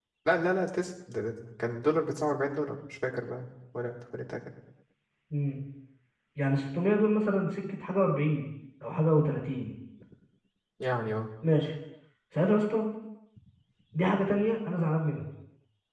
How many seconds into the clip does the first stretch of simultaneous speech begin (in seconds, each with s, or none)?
none